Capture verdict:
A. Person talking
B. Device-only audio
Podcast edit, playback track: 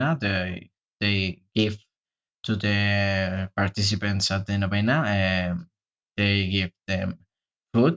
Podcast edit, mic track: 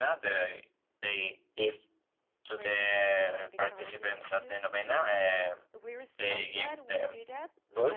A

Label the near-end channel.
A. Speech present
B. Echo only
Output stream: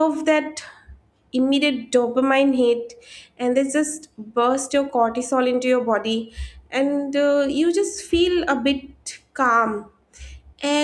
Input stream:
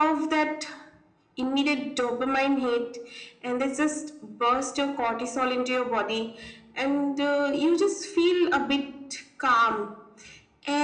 B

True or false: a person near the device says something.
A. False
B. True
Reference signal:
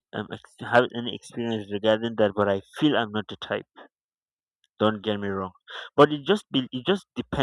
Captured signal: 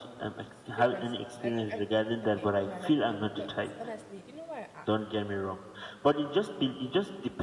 B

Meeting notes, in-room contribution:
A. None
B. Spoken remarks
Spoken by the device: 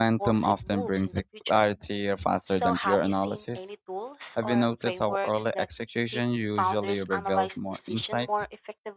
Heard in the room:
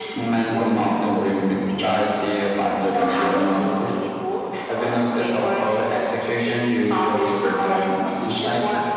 A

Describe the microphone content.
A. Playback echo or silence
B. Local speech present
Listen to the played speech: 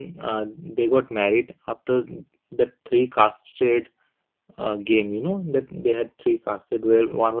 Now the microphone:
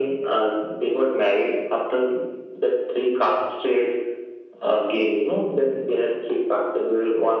A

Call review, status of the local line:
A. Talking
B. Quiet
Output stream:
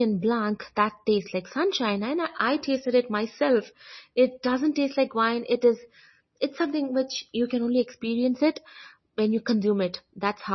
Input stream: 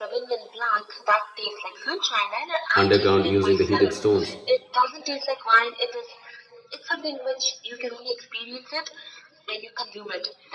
A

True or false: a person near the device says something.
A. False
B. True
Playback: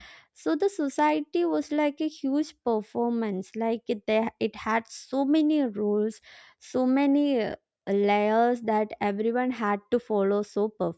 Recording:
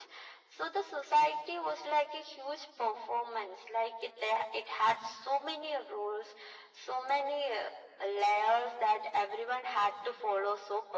A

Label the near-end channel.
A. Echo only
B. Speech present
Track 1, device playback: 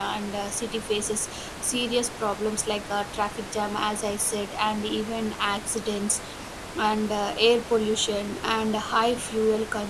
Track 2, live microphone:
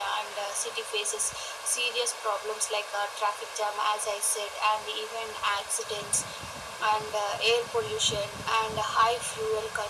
A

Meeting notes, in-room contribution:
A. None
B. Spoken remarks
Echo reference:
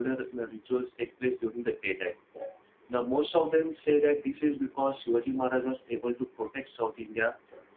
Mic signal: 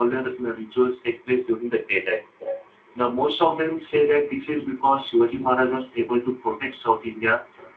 A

